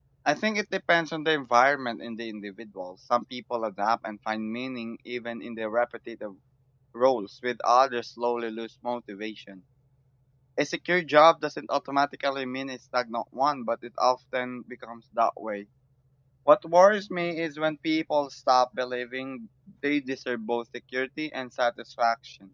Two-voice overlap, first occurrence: none

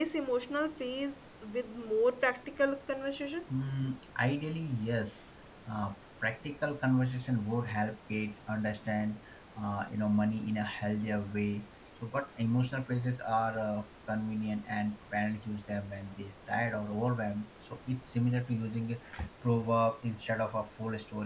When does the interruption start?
none

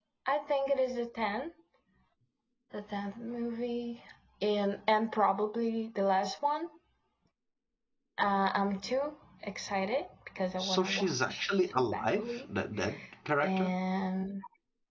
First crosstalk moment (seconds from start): 10.6 s

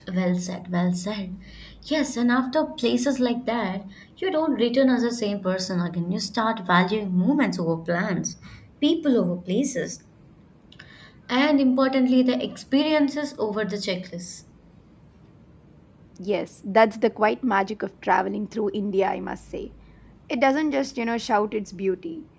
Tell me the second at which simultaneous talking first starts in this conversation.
none

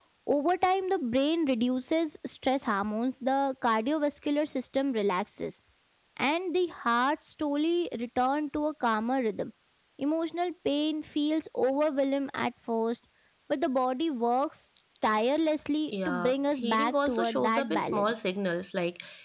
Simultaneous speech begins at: 15.9 s

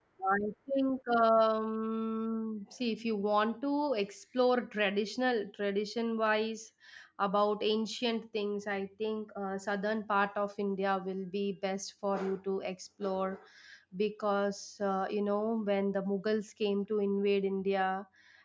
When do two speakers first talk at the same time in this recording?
none

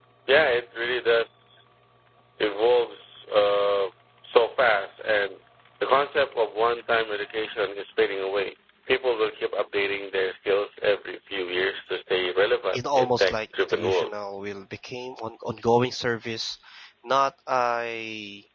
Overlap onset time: 12.7 s

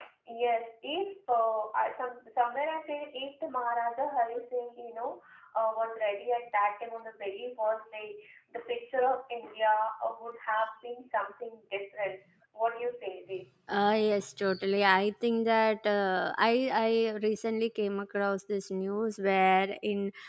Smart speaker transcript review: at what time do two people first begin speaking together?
none

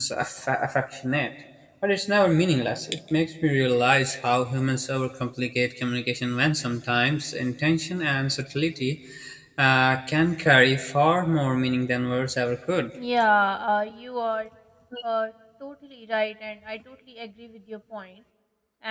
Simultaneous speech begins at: none

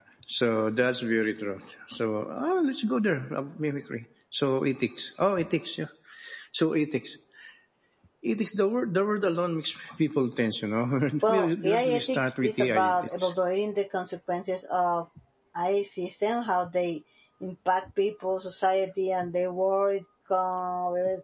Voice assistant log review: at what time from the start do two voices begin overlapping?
11.2 s

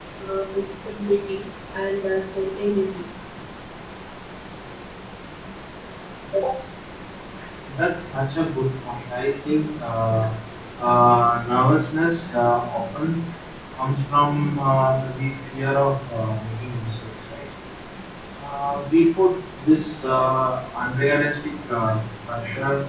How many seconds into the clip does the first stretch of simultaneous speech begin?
none

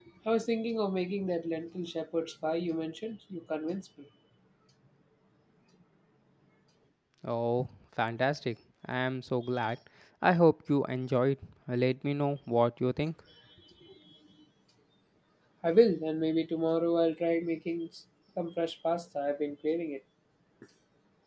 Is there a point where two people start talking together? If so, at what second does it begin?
none

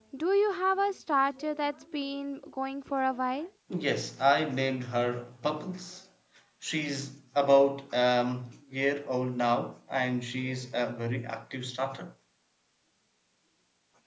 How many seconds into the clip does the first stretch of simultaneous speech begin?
none

